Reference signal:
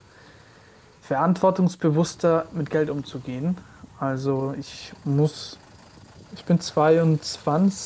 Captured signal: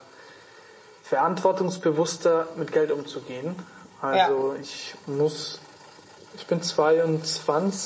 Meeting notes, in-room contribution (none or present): present